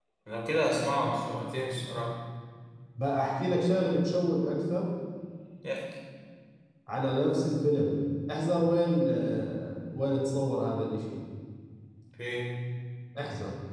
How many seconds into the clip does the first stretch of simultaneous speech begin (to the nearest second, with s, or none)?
none